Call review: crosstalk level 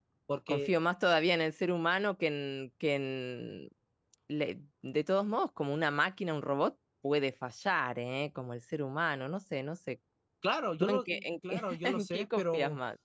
present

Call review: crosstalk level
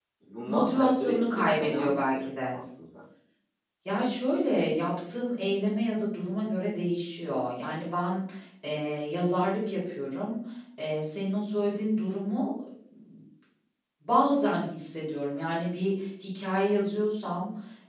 present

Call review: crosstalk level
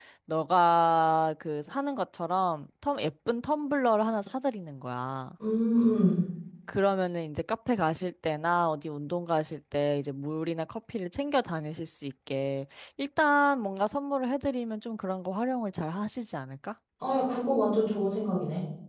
none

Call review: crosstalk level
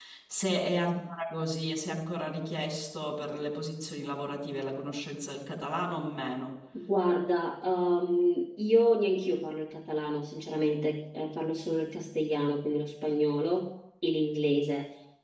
none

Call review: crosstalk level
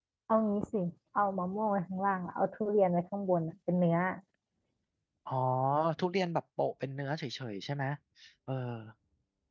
none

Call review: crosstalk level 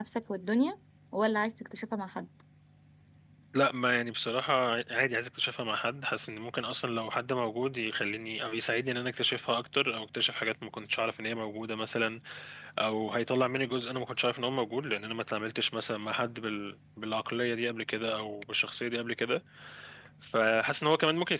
none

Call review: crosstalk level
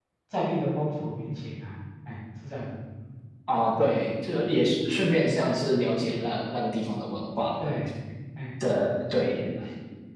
none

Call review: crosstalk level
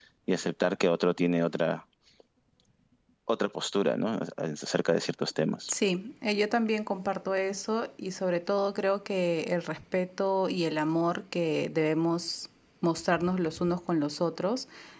none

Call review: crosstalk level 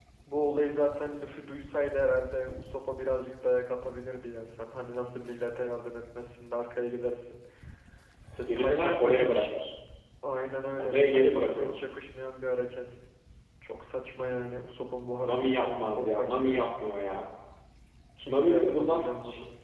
present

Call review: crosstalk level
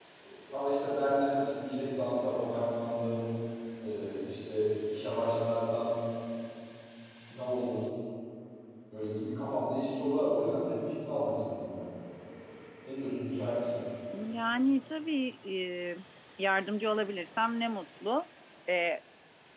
none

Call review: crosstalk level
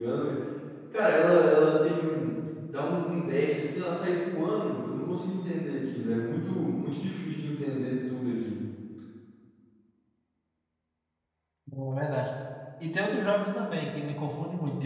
none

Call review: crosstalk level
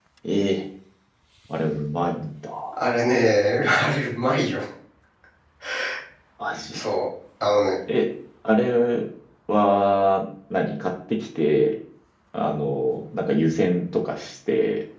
none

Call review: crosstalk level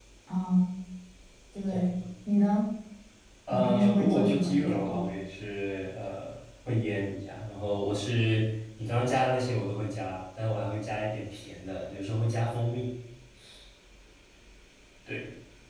present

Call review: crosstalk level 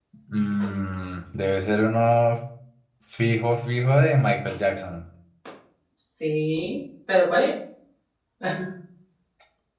none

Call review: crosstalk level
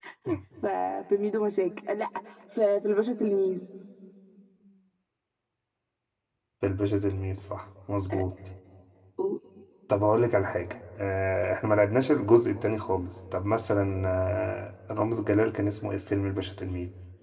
none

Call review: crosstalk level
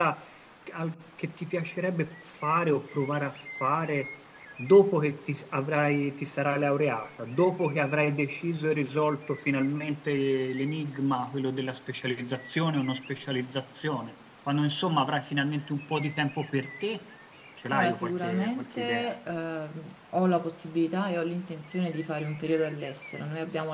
present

